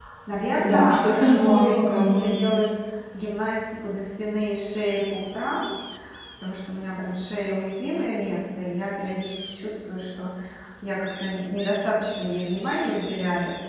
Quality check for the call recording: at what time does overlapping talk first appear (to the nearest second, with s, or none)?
1 s